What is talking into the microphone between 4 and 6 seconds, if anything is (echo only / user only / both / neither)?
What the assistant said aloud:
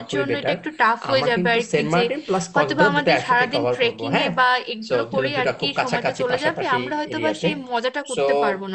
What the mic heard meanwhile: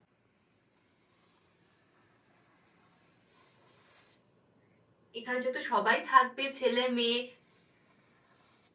user only